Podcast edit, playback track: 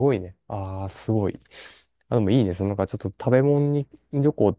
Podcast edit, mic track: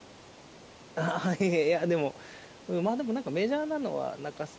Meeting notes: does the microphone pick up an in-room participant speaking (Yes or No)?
Yes